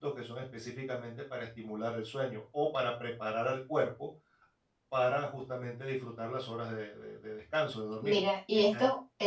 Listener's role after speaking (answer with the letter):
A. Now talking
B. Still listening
A